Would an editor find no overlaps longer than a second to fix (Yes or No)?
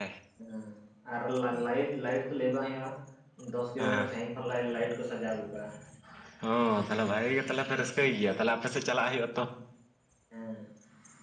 Yes